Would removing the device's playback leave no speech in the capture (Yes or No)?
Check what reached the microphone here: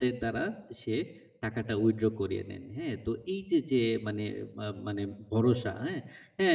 No